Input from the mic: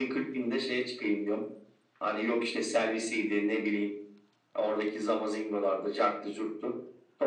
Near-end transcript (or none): none